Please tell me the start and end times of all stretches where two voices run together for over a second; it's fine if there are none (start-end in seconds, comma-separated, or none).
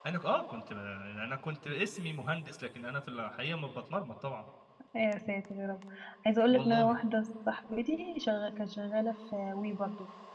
none